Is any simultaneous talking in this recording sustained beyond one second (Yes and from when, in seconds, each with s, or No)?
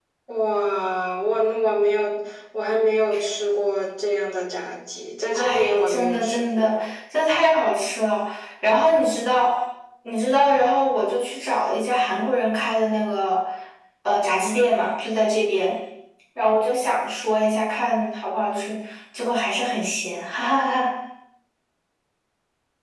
Yes, from 5.3 s